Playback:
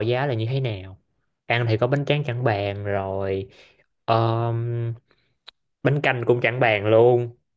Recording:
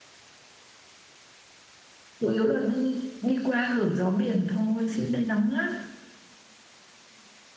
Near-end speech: present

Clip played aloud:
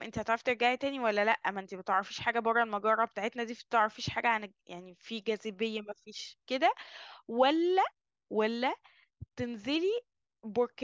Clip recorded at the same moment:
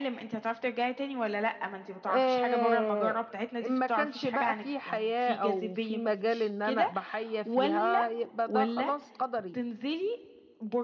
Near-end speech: present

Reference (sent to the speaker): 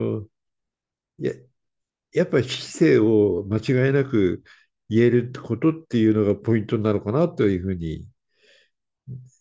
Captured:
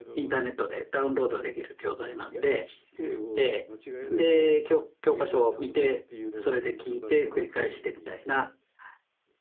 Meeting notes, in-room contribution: present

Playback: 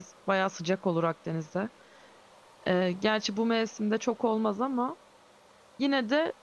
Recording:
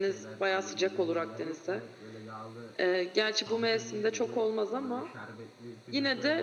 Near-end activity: present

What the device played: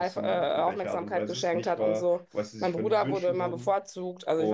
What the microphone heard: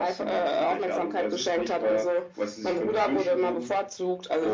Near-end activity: none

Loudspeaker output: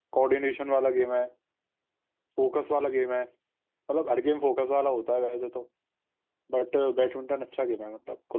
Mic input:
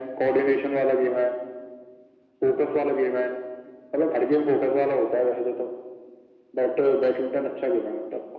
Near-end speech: none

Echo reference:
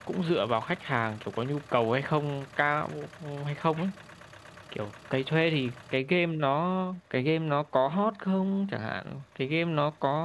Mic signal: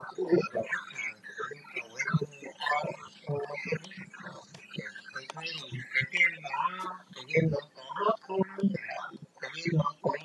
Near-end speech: none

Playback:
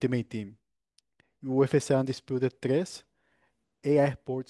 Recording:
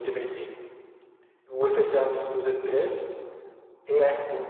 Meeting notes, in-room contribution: none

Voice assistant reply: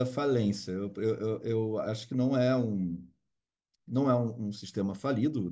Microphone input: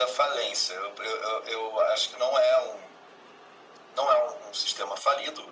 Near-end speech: none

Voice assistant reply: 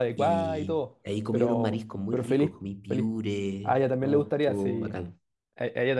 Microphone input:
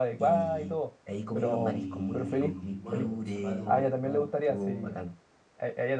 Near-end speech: present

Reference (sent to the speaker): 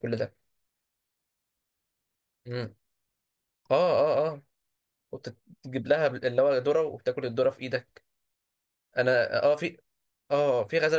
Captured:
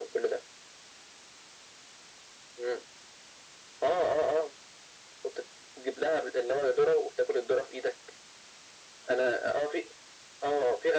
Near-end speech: none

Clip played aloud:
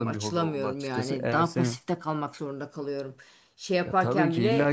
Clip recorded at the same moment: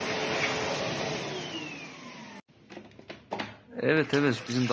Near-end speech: present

